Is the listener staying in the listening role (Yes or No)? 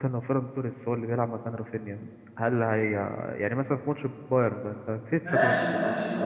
No